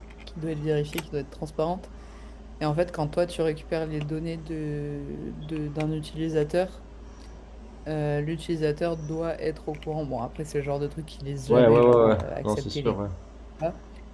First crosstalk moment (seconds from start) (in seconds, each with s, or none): 11.5 s